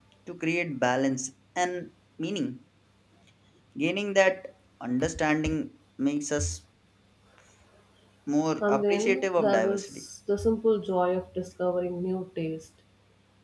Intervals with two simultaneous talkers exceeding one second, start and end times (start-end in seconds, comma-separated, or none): 8.6-10.0